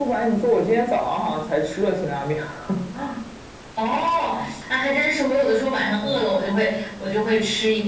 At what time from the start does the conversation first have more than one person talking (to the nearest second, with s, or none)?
none